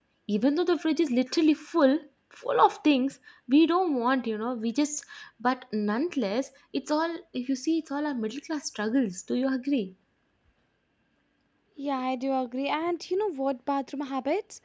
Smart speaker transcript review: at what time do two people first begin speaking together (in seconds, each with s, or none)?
none